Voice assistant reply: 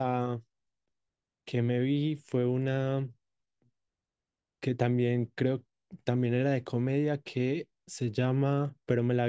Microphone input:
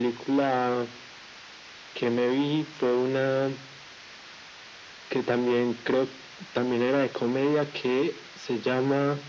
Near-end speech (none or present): none